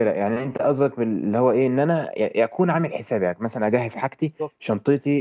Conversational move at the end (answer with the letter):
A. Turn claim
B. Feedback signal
B